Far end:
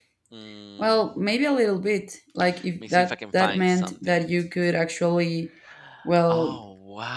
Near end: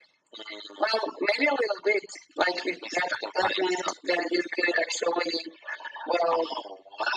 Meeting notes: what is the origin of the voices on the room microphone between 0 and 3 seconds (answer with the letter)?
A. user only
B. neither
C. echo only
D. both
C